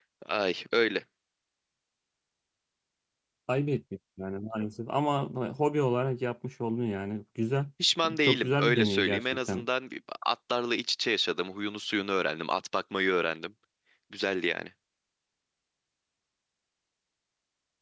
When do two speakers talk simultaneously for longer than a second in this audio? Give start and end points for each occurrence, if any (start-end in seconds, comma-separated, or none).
8.2-9.6